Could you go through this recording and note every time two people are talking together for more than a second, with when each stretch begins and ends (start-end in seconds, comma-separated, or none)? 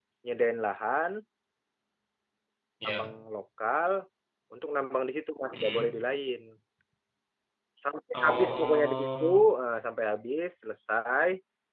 8.1-9.4